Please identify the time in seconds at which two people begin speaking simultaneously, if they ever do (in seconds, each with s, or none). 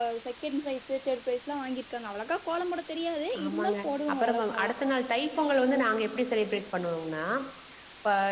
3.3 s